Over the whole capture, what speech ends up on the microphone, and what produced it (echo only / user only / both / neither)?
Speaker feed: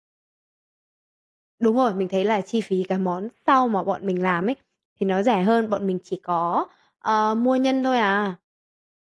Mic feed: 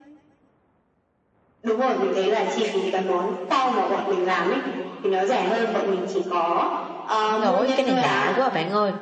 both